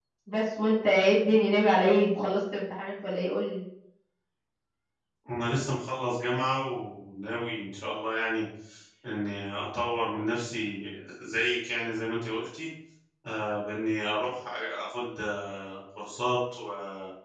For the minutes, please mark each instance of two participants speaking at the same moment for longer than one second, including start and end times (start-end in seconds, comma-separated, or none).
none